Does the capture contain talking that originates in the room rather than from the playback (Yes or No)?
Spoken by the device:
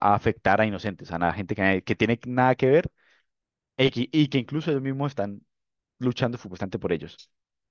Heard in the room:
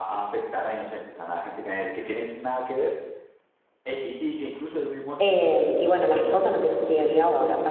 Yes